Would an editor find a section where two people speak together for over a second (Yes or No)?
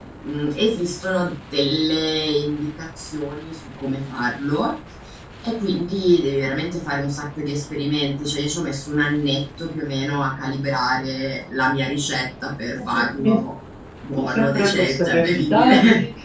Yes